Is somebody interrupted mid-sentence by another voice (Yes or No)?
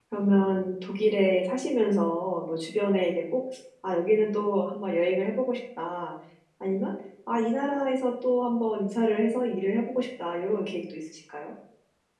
No